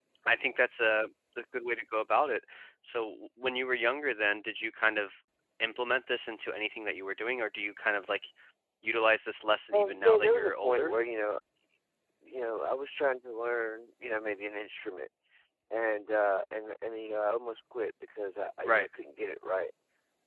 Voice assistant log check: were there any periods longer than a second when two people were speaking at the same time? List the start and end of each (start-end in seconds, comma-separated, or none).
9.7-10.9